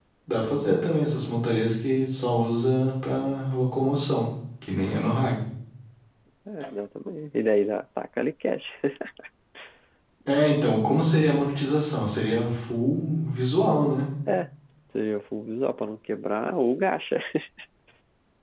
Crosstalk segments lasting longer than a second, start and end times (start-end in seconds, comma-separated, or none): none